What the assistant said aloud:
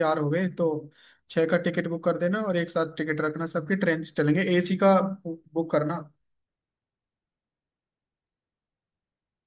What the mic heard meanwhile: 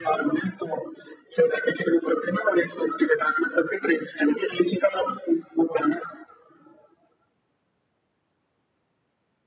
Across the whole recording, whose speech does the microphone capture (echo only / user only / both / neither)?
echo only